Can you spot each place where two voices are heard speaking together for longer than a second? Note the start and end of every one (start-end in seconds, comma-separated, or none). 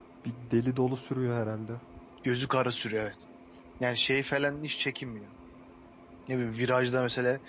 none